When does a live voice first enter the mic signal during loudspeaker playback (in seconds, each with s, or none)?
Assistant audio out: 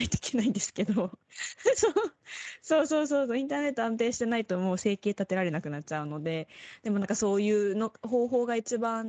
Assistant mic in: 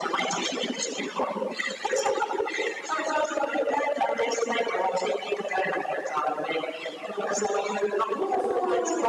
8.1 s